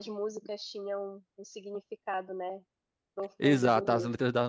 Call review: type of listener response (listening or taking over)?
taking over